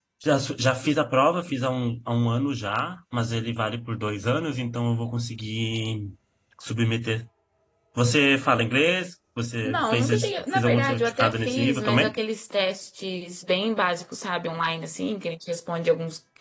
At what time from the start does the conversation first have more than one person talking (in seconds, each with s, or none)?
9.6 s